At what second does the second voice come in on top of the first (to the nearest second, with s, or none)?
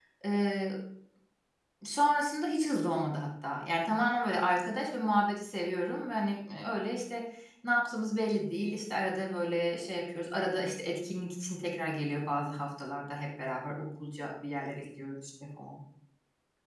none